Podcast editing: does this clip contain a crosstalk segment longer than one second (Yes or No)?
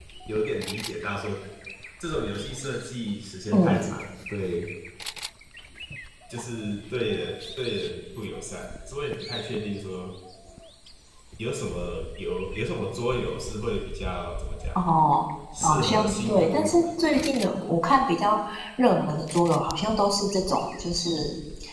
Yes